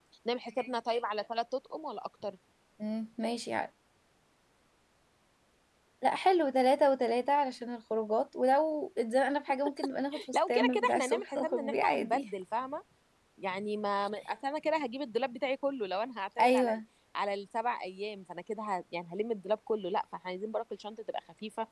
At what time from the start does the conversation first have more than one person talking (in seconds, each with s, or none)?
10.3 s